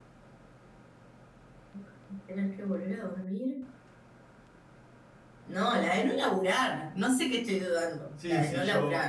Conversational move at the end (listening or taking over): taking over